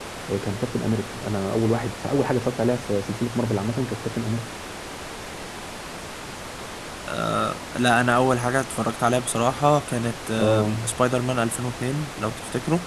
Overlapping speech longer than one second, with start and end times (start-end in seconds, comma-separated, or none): none